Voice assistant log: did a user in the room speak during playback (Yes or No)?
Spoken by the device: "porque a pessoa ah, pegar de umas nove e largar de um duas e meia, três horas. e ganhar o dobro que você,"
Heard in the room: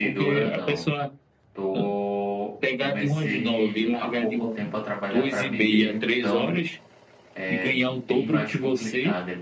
Yes